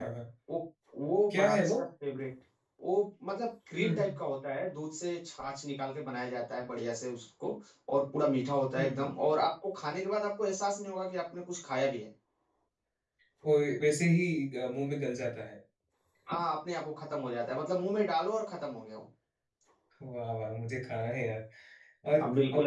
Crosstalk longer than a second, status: none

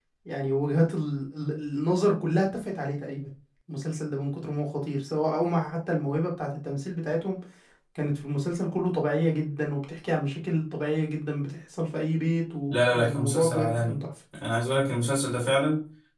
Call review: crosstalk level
present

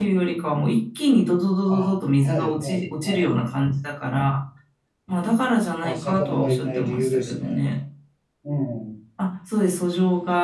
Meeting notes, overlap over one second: present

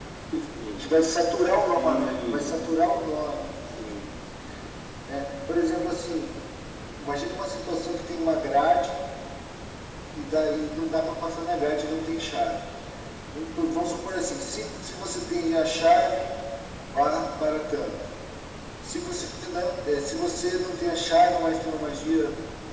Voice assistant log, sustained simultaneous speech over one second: present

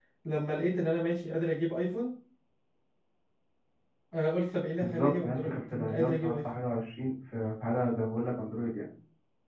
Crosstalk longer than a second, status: present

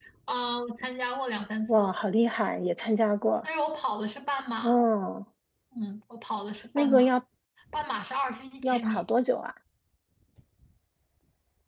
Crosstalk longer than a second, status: none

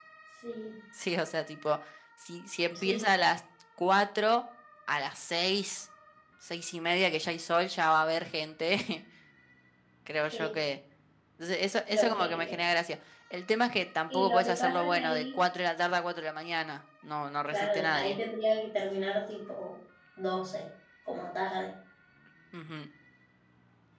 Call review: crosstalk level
present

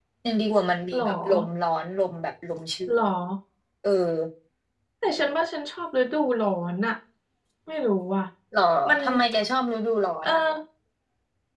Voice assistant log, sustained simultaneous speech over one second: none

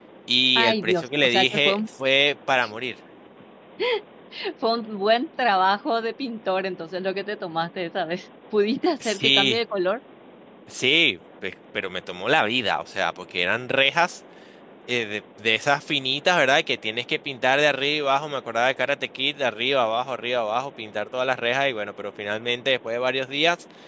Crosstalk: present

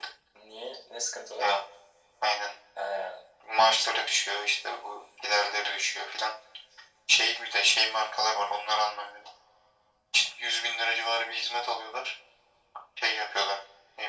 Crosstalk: none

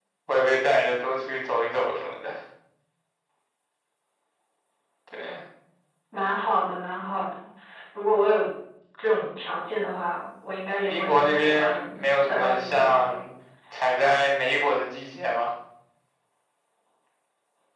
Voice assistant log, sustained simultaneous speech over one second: present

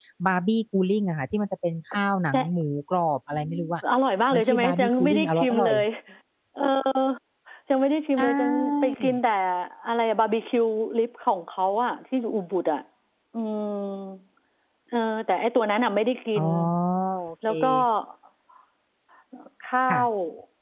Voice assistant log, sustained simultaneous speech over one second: present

